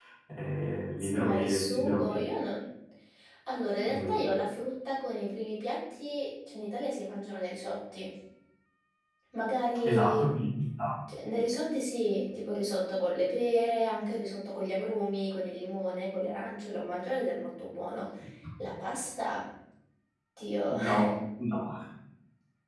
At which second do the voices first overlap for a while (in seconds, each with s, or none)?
1.0 s